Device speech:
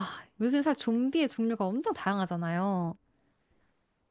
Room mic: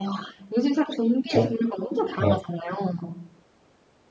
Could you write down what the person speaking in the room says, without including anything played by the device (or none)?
그렇죠? 어,